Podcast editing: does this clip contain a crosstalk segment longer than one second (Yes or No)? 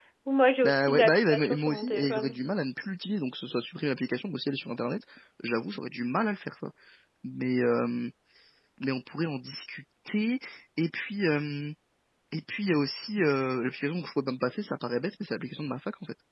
Yes